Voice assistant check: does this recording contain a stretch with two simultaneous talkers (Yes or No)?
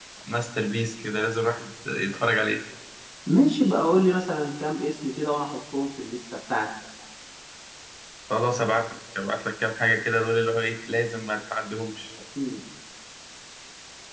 No